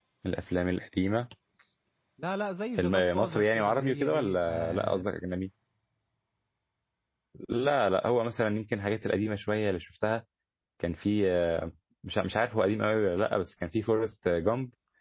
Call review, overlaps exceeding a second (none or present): present